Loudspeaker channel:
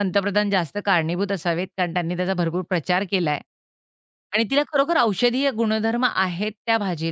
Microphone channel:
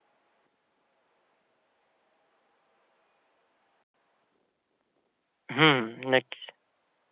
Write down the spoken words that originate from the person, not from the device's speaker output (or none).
नक्कीच.